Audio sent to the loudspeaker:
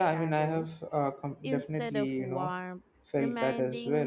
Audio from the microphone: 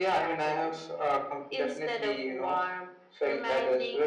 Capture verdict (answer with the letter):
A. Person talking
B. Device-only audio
B